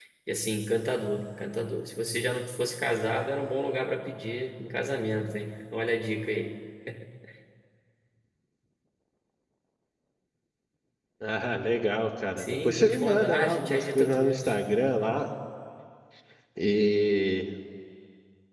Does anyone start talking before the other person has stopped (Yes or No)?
Yes